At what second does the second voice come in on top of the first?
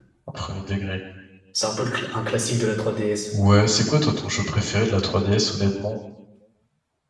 none

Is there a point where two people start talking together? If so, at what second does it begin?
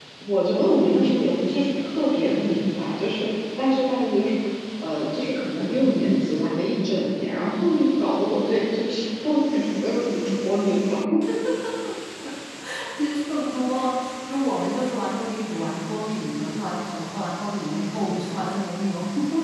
none

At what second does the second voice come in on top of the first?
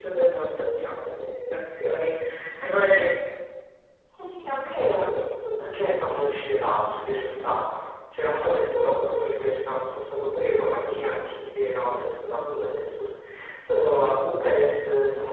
none

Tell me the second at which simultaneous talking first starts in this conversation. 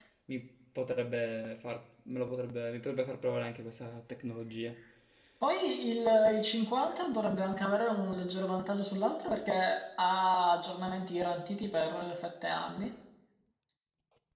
none

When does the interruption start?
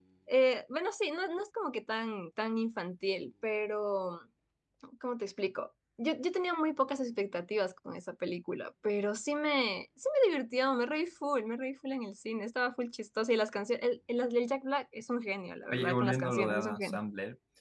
15.7 s

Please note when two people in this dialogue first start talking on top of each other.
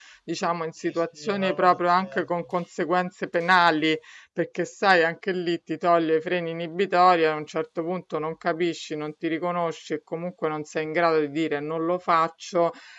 0.8 s

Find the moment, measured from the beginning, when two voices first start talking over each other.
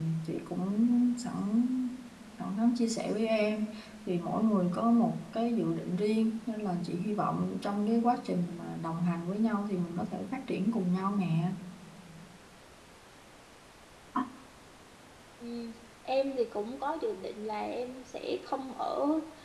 none

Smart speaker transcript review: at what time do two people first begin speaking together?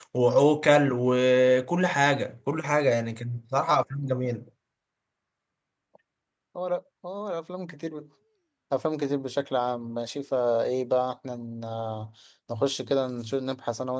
none

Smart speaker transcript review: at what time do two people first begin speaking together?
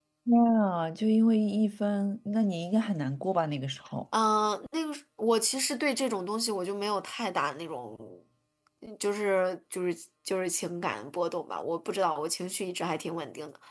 none

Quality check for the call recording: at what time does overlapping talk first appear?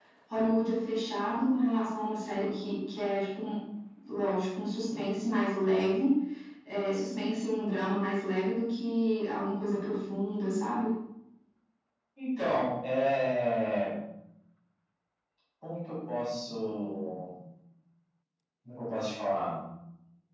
none

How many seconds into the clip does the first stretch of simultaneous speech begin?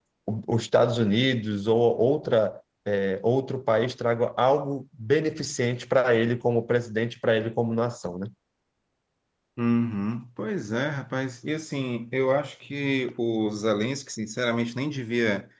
none

